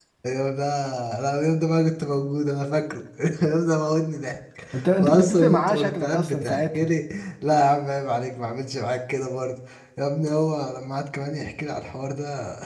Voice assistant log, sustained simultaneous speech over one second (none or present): present